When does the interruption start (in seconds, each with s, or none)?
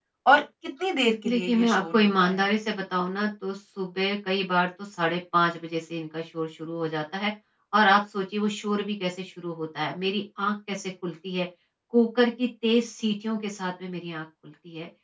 1.3 s